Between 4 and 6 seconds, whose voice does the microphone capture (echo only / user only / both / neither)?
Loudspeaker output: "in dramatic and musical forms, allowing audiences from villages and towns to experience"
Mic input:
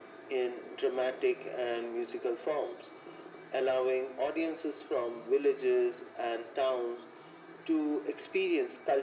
echo only